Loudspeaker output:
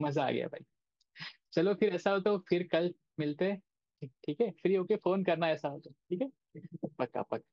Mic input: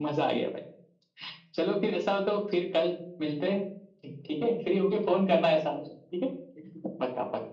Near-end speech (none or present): none